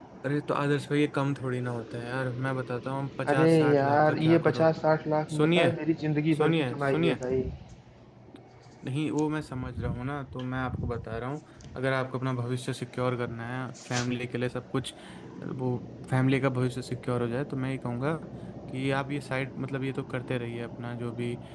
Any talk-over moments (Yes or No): Yes